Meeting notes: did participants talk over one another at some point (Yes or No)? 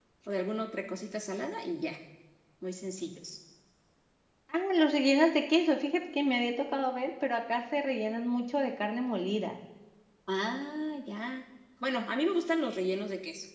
No